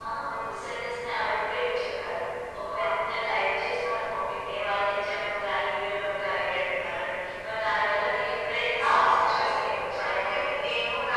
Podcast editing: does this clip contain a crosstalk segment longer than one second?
Yes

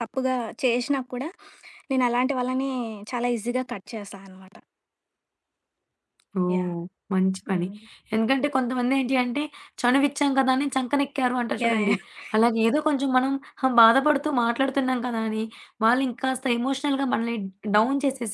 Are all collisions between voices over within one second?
Yes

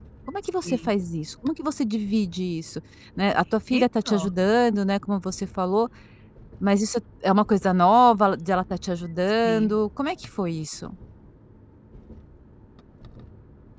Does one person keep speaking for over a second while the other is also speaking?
No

